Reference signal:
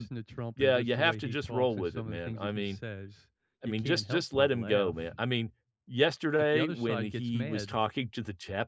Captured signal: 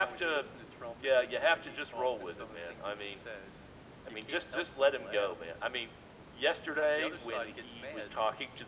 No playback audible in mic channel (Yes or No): No